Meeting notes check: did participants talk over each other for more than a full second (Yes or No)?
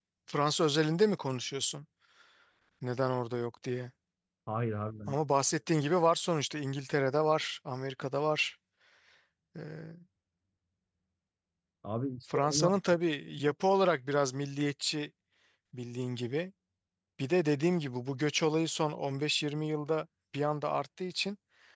No